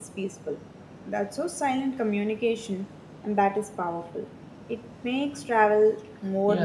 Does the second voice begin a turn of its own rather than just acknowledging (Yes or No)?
Yes